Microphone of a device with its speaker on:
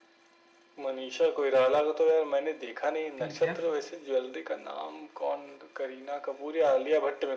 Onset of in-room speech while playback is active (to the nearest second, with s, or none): 3 s